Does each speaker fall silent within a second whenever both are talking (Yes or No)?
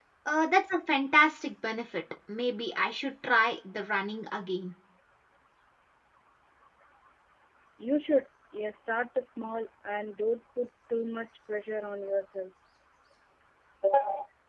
Yes